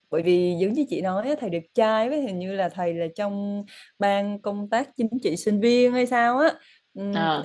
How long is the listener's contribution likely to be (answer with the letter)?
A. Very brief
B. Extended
A